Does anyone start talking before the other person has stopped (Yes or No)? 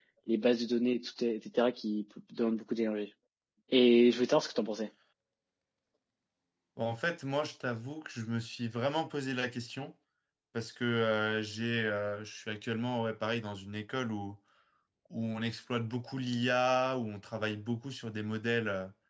No